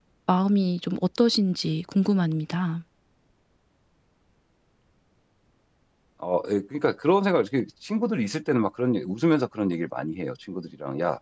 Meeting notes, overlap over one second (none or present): none